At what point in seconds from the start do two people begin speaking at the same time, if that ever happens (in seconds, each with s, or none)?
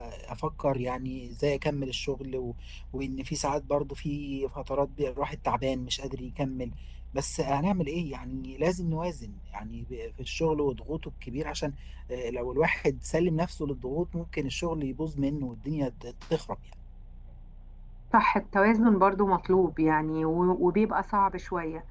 none